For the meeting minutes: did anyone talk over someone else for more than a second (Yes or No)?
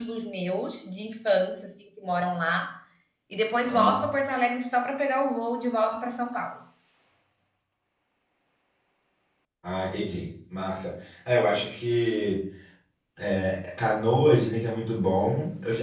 No